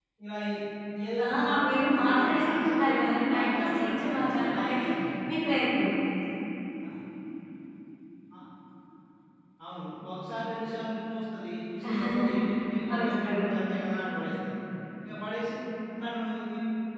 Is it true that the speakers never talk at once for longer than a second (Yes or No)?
No